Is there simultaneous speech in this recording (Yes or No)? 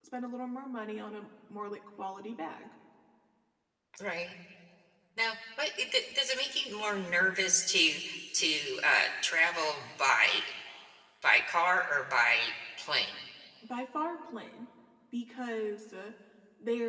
No